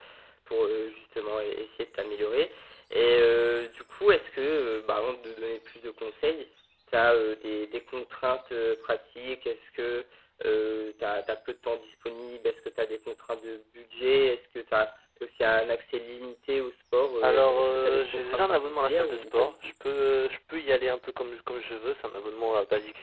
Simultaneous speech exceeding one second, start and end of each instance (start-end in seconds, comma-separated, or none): 17.2-19.6